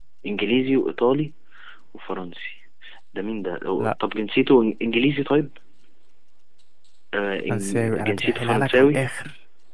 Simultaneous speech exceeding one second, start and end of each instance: 7.5-9.0

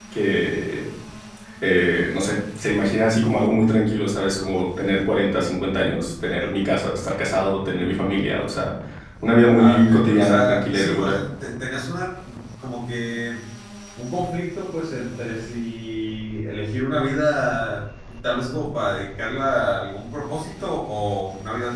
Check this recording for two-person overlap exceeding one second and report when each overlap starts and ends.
9.6-11.2

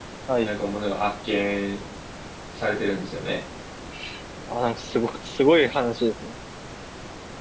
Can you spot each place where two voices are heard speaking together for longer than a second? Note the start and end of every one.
none

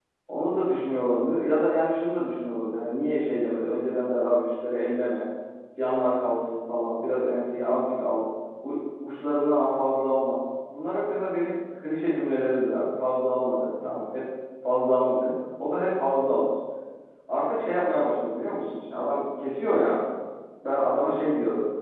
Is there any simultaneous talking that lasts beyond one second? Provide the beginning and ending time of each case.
none

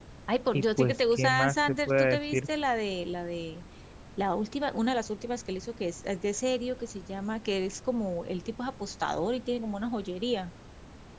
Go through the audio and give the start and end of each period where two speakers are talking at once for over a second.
0.5-2.5

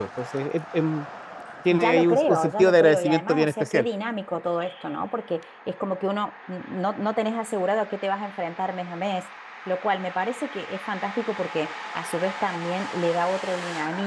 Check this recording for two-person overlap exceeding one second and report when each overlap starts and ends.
1.7-3.9

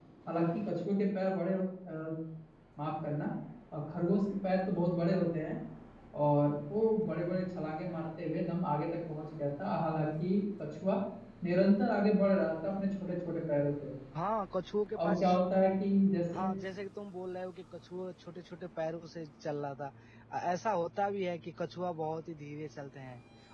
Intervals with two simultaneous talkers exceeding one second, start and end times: none

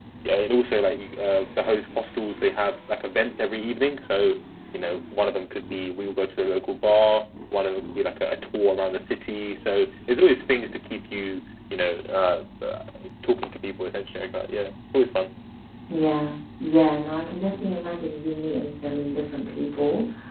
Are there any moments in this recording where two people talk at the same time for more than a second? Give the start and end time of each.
none

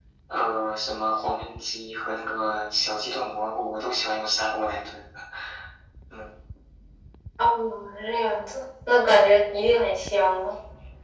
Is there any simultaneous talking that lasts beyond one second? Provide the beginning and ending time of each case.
none

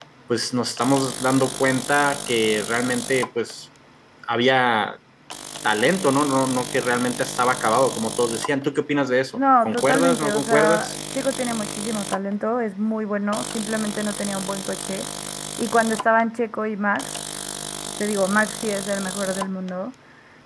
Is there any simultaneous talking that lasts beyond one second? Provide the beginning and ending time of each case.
9.3-10.9

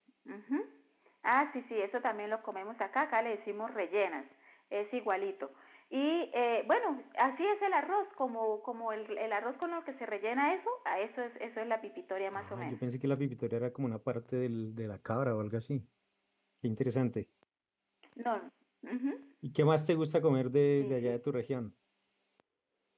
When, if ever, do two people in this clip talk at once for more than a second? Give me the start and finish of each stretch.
none

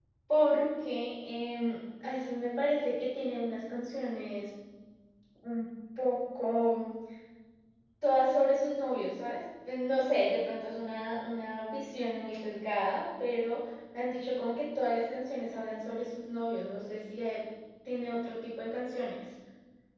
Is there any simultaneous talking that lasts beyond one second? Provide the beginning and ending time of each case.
none

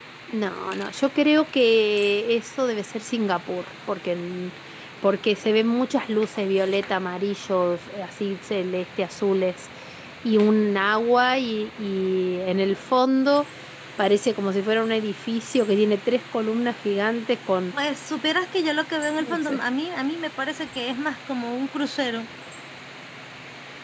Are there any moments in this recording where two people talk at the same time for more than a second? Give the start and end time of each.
none

